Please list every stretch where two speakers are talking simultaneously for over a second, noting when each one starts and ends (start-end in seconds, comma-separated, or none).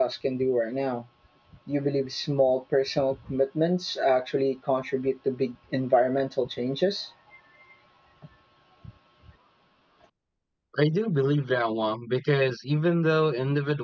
none